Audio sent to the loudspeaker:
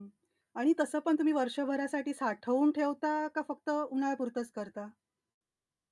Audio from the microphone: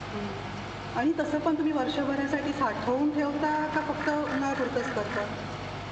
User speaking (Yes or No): No